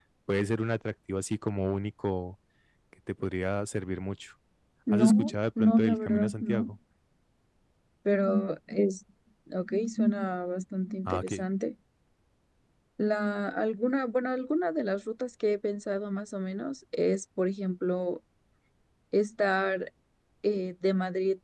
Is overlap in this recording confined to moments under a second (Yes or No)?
No